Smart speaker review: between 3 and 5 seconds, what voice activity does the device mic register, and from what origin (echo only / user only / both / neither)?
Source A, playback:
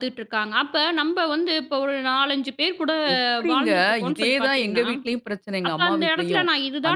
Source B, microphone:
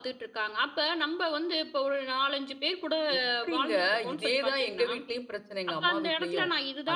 echo only